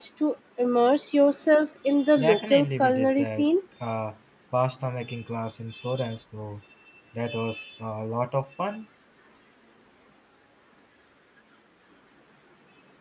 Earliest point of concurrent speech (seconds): 2.2 s

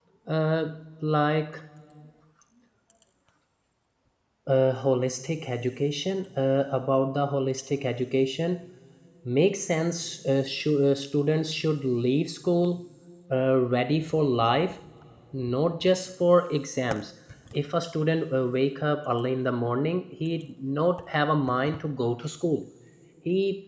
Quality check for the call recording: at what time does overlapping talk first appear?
none

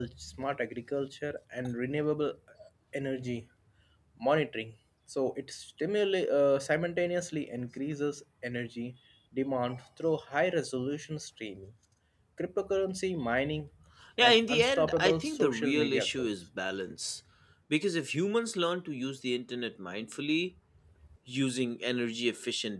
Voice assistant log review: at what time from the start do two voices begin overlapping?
14.2 s

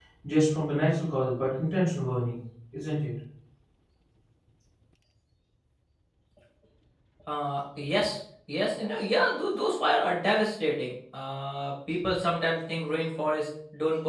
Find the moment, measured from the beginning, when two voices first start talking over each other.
none

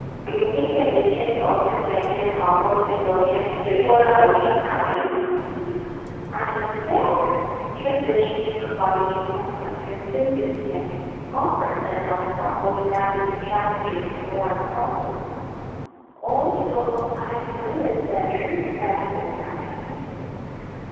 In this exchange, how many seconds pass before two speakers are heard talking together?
3.7 s

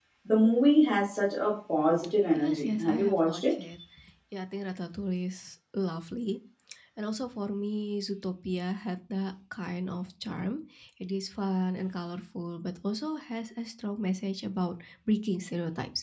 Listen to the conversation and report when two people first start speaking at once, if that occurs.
2.4 s

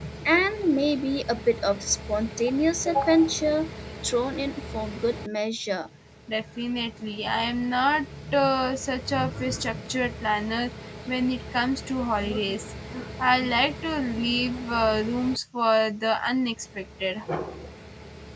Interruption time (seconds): none

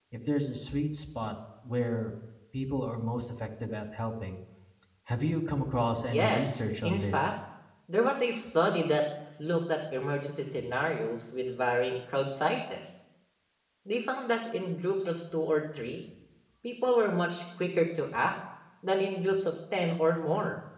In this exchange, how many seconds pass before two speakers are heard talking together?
6.1 s

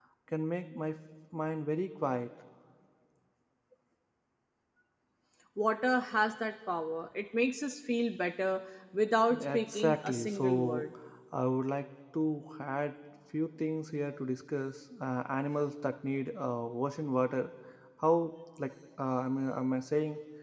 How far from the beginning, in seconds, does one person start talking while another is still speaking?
9.3 s

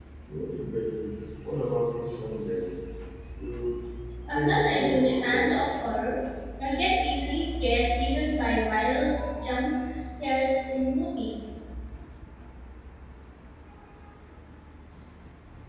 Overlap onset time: 4.3 s

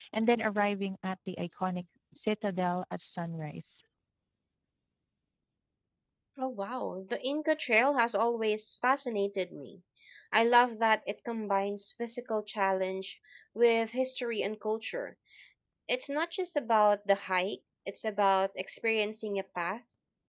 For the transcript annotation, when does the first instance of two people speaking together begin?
none

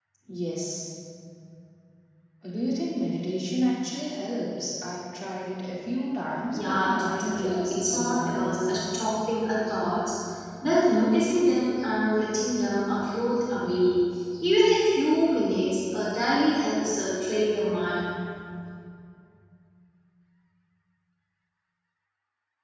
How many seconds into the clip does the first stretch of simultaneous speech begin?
6.5 s

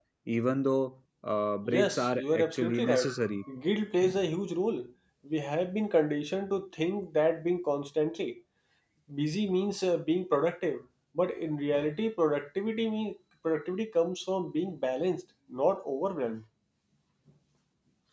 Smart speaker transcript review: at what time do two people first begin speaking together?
1.6 s

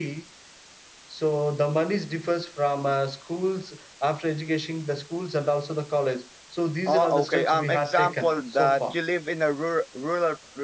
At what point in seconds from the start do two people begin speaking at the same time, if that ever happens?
6.9 s

